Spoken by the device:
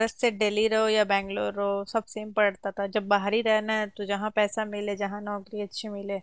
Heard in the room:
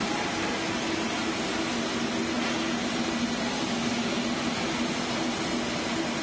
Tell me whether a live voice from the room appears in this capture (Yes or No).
No